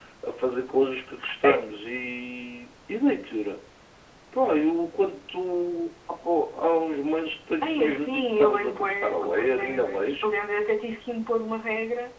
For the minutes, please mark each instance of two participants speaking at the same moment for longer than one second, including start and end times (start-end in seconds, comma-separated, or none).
7.6-10.3